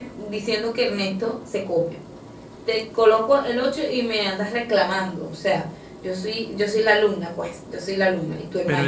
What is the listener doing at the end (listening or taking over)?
taking over